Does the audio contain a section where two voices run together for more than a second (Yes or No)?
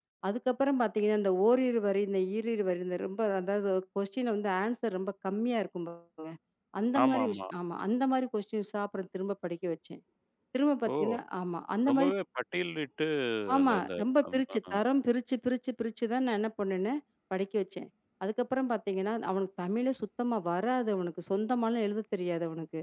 No